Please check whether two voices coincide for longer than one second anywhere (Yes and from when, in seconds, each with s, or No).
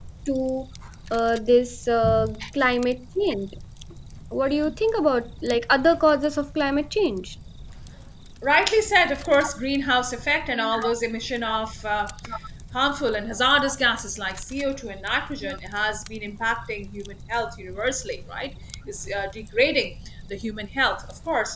No